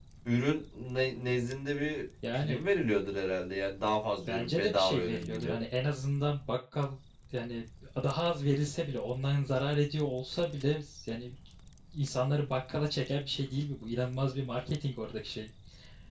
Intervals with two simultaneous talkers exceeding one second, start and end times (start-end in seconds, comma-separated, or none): 4.3-5.5